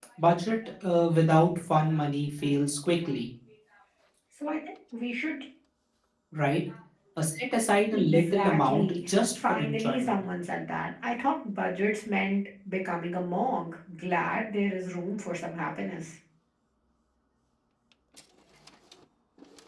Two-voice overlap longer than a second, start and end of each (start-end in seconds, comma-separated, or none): 7.9-10.2